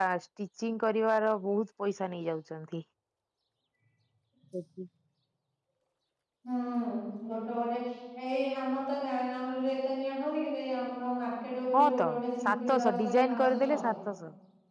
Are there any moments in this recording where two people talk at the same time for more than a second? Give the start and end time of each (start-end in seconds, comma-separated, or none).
12.4-13.9